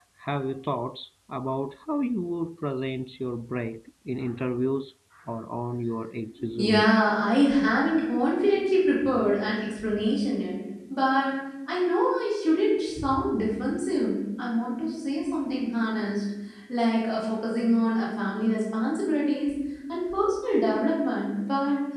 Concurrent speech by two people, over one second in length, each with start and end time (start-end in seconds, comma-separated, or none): none